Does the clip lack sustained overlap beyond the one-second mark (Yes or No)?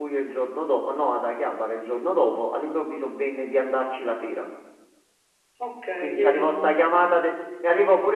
No